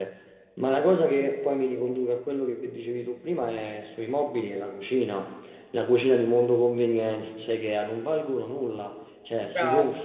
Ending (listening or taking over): listening